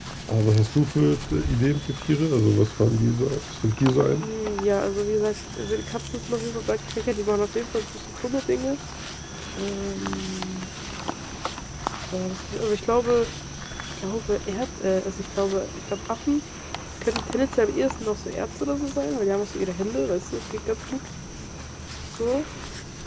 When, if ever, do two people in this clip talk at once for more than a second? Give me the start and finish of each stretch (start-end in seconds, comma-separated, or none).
none